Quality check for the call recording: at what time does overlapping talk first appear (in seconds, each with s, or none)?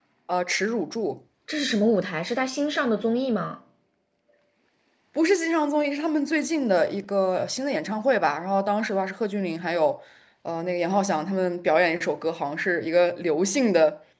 none